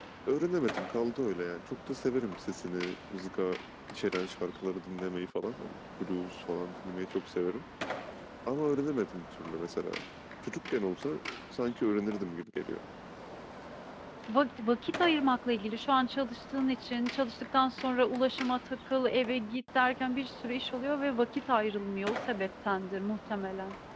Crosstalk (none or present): none